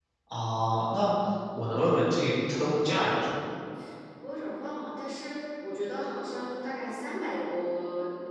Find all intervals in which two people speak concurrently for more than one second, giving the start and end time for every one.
none

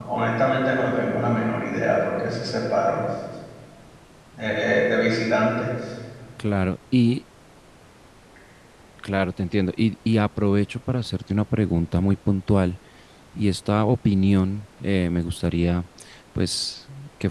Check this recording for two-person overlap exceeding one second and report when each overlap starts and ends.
none

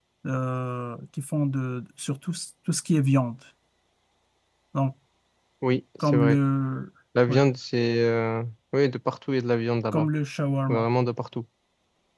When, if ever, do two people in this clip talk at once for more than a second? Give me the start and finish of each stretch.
none

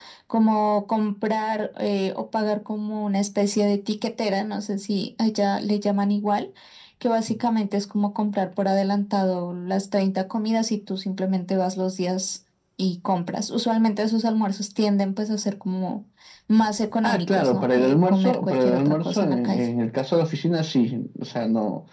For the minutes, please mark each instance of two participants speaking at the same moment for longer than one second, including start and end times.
17.0-19.6

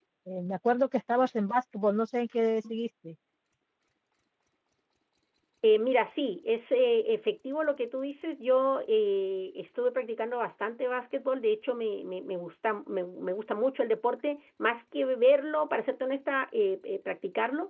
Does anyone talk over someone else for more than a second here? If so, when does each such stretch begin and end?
none

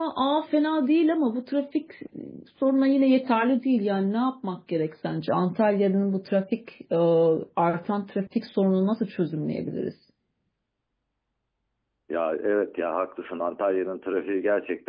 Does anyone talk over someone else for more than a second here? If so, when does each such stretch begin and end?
none

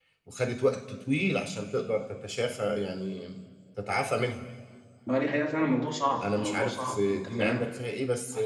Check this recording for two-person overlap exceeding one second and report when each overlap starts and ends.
6.2-7.6

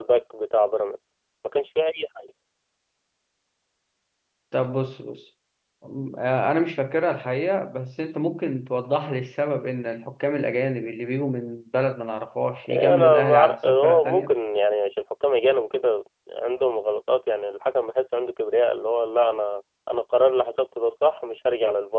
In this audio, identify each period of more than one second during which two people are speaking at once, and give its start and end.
12.7-14.3

